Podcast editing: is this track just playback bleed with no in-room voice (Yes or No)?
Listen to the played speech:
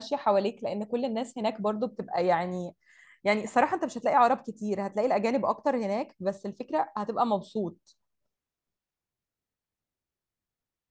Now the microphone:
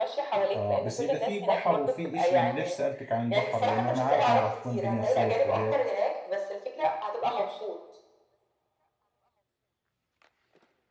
No